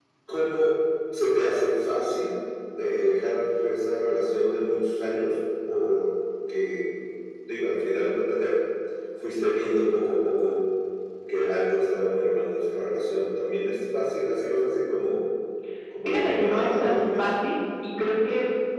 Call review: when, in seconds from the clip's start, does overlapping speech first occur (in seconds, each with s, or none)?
16.1 s